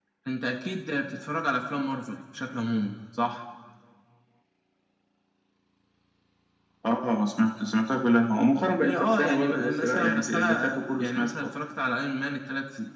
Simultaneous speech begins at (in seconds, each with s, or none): 8.8 s